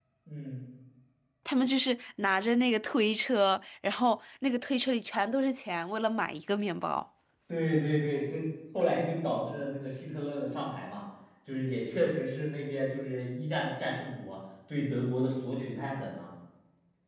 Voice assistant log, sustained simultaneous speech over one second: none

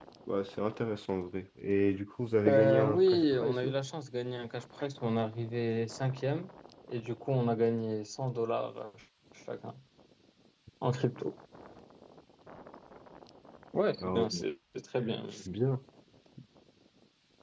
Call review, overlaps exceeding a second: present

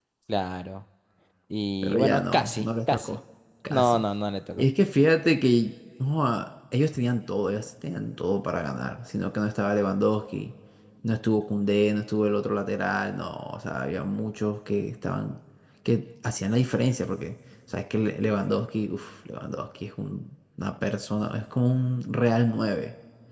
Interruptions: present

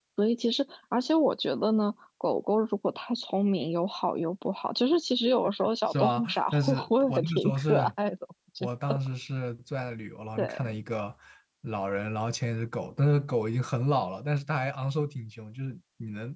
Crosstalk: present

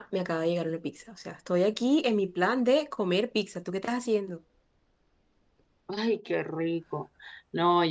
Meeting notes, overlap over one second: none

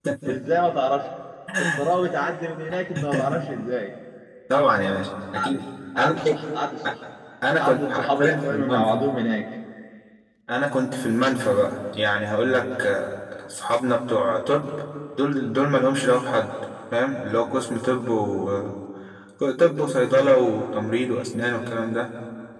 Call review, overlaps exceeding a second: present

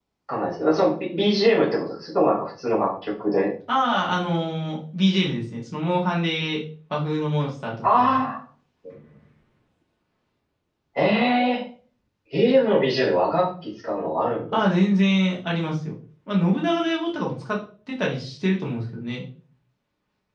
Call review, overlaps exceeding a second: none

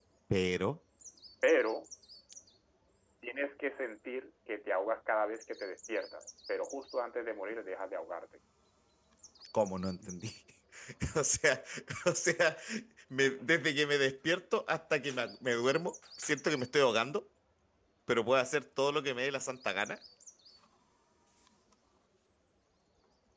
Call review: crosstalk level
none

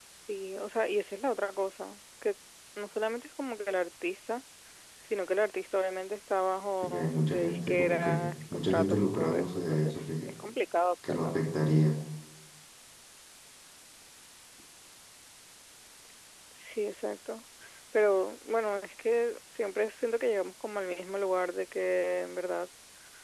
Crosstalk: present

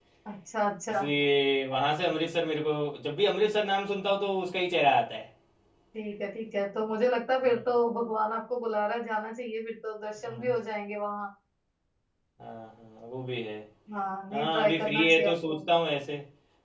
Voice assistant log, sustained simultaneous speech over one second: present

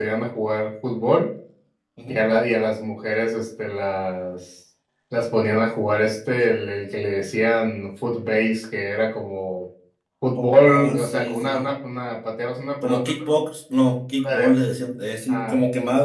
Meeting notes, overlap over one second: present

